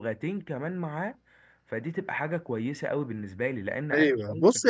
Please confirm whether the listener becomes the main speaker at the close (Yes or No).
Yes